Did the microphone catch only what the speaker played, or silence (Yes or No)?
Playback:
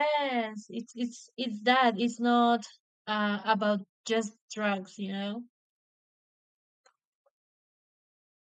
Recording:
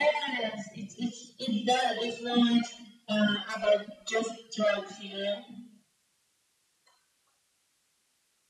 Yes